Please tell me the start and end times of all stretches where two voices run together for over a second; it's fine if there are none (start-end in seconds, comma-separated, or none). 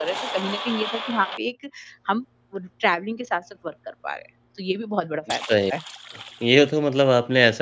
none